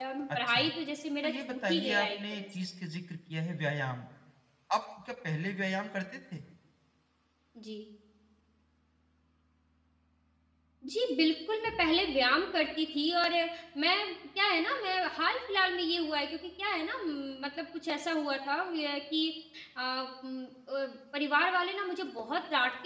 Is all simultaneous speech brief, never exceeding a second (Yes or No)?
No